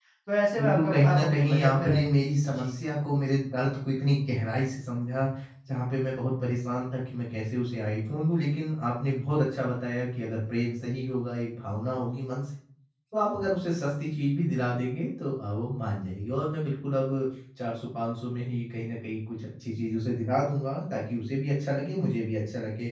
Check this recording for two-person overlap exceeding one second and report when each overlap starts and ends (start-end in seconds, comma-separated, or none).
0.6-2.7